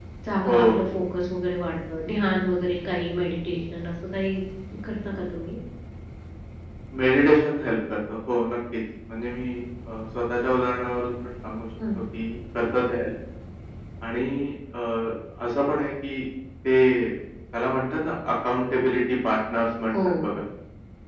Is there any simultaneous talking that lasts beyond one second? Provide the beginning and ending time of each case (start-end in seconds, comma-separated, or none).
none